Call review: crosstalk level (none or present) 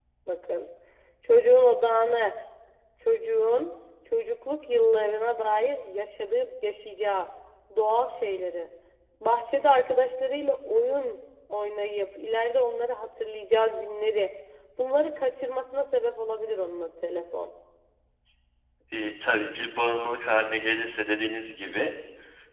none